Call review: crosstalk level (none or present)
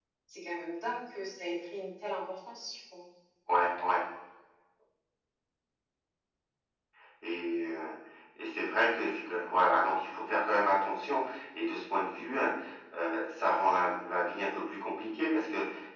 none